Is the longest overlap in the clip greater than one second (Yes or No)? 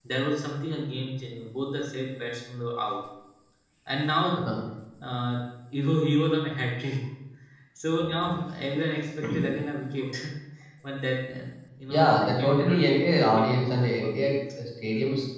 Yes